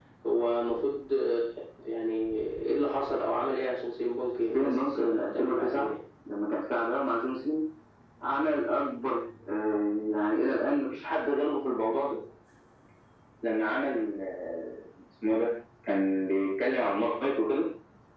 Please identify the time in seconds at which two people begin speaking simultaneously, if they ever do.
4.5 s

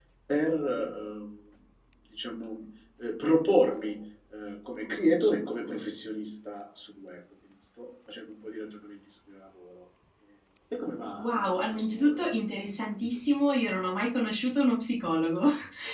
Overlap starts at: 11.2 s

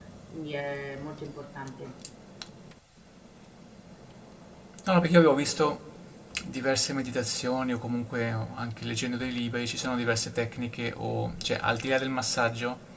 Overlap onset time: none

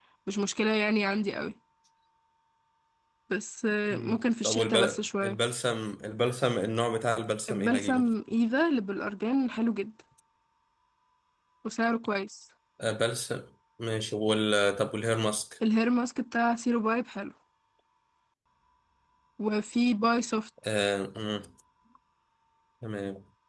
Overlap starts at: 3.9 s

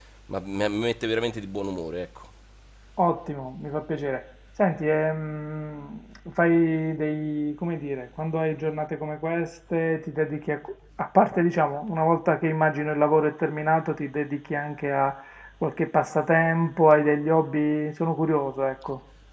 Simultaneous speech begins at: none

